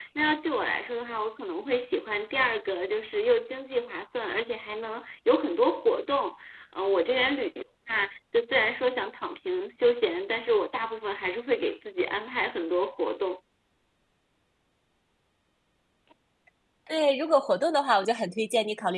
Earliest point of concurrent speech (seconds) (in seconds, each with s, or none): none